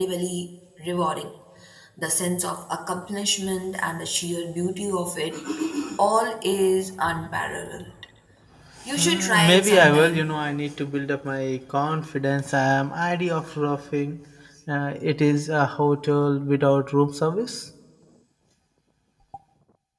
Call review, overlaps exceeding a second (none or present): present